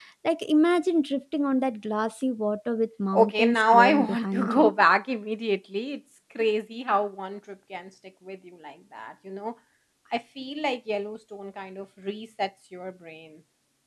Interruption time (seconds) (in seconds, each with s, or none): 3.1 s